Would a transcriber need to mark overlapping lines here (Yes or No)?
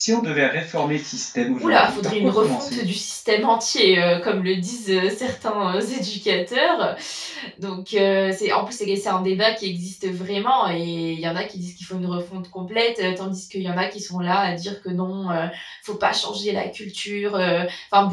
Yes